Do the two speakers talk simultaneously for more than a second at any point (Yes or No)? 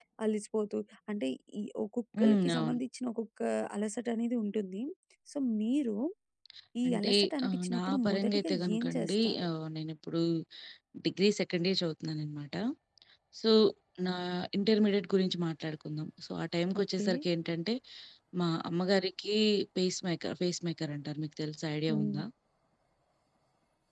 Yes